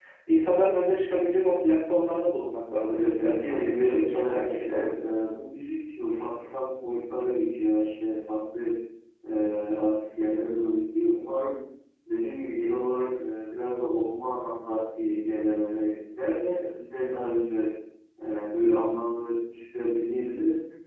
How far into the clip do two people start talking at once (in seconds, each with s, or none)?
2.9 s